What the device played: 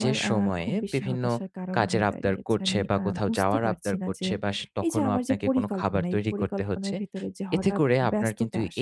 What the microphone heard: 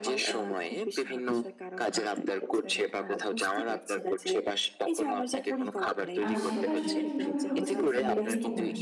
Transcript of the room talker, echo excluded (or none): আ সেটা আসলে কিভাবে হচ্ছে? যে এরকম